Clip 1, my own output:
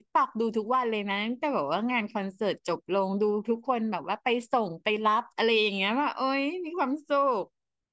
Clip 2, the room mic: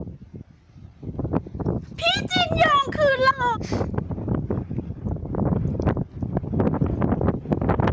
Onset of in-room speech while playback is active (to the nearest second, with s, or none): 2 s